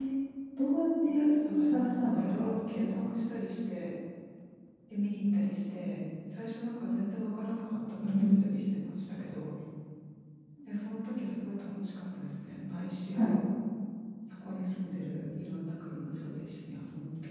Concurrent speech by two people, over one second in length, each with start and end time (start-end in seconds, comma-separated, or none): 1.8-3.0